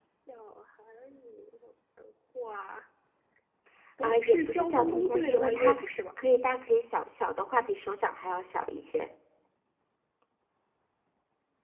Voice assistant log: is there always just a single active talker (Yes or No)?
No